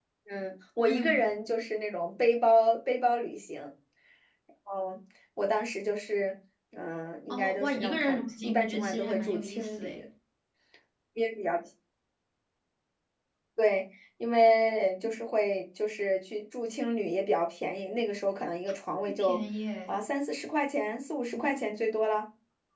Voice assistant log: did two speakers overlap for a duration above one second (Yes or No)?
Yes